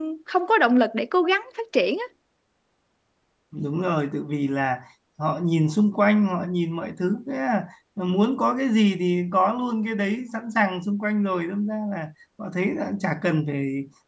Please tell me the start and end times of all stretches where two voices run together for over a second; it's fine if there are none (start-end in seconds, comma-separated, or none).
none